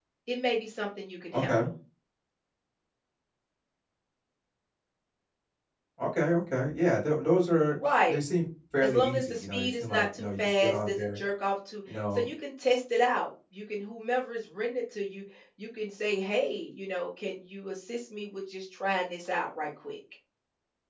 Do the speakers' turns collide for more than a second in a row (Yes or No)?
Yes